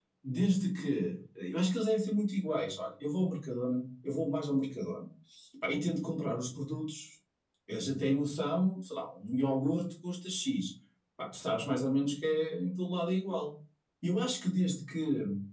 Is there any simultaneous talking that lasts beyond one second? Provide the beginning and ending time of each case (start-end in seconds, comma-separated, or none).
none